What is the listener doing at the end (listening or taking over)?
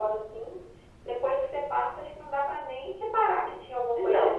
taking over